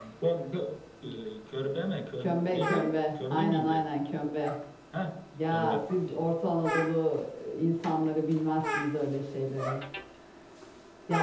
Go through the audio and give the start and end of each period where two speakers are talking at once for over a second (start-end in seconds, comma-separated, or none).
2.2-3.9